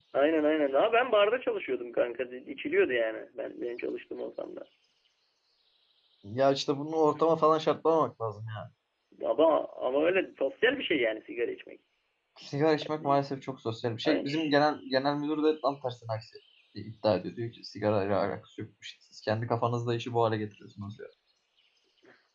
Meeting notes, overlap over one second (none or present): none